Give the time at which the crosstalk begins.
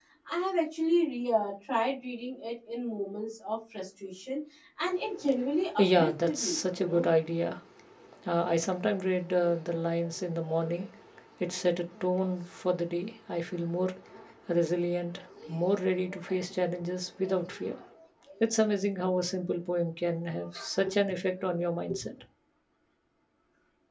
5.8 s

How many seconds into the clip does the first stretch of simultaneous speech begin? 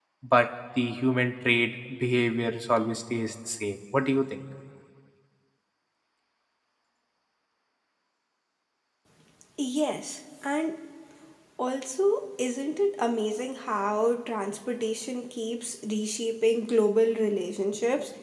none

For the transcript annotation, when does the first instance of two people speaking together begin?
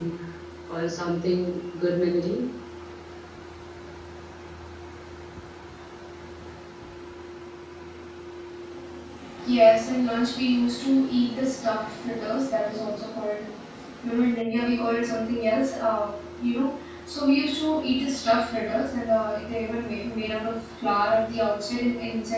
none

